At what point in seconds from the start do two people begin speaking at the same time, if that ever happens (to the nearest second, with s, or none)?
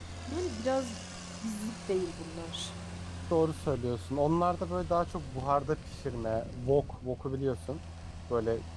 none